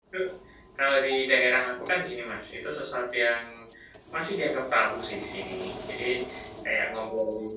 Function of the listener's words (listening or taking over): listening